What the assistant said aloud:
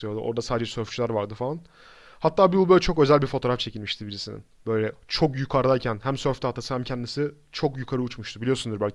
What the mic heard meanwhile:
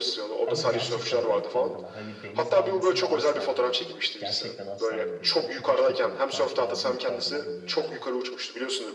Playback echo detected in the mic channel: Yes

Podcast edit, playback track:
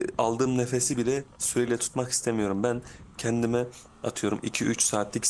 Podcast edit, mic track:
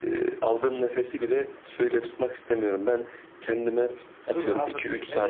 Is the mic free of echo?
No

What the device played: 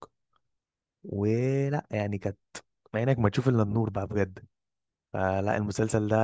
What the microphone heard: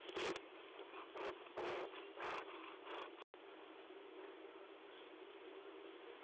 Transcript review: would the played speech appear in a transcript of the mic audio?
No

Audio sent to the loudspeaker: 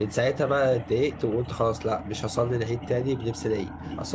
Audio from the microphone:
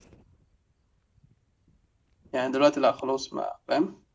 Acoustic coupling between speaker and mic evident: No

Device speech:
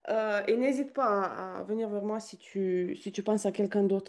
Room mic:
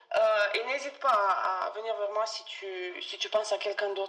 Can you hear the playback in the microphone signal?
Yes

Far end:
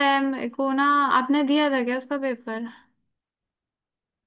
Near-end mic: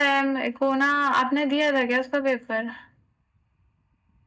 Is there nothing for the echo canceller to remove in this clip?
No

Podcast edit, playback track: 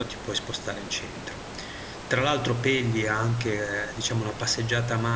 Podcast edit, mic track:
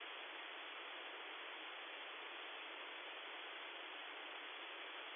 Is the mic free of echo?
Yes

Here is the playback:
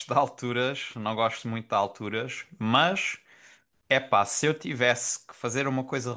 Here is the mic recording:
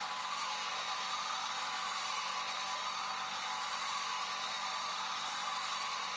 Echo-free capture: Yes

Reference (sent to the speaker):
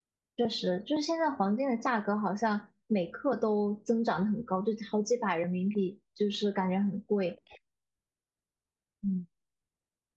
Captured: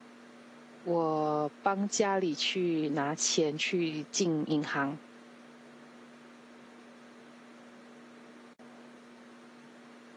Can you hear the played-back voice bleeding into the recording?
No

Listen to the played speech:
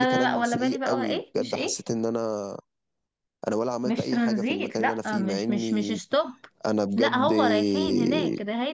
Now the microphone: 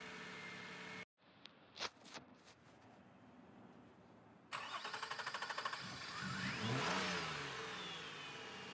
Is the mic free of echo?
Yes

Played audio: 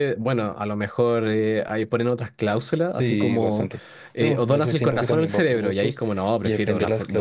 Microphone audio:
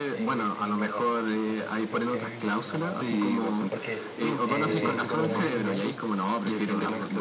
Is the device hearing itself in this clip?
Yes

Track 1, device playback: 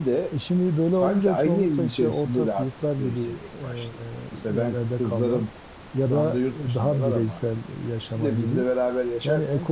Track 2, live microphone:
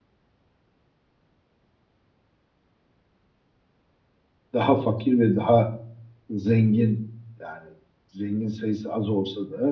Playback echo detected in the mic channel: No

